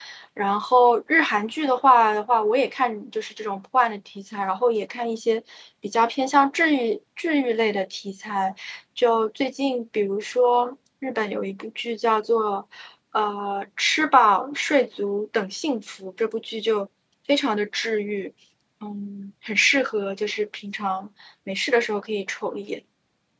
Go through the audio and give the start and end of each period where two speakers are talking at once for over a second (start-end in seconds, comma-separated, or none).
none